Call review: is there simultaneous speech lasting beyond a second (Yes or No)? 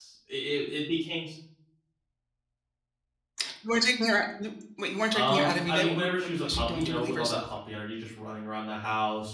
Yes